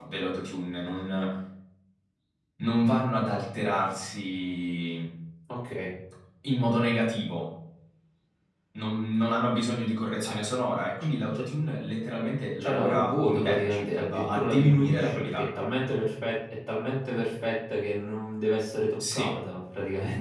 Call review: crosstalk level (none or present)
present